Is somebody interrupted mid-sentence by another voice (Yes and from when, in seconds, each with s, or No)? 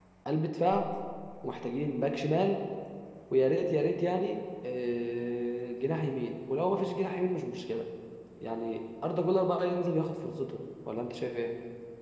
No